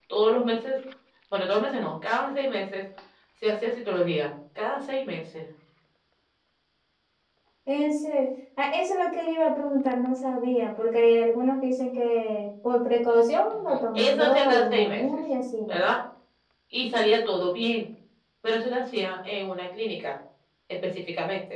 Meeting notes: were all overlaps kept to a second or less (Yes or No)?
No